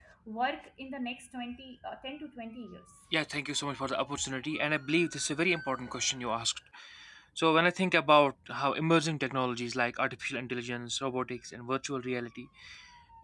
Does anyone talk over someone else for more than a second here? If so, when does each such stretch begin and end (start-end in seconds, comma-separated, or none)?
none